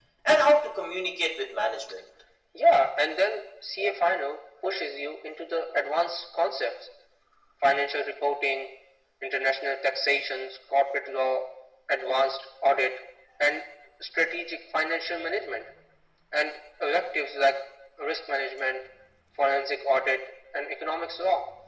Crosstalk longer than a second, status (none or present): none